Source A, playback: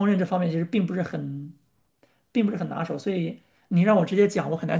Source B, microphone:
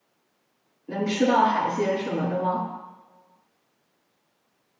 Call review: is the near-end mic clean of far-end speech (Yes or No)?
Yes